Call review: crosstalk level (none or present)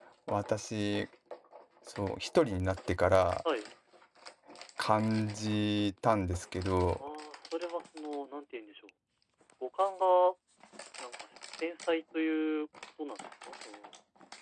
none